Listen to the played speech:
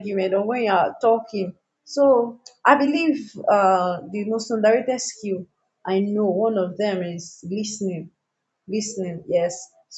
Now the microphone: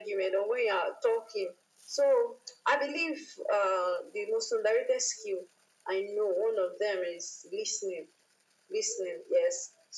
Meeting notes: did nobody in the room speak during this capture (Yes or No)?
Yes